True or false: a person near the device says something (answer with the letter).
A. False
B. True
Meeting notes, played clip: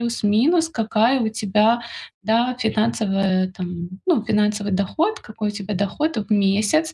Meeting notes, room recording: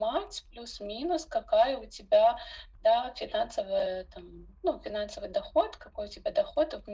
A